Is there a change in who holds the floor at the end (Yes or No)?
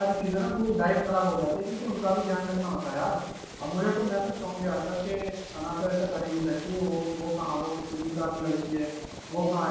Yes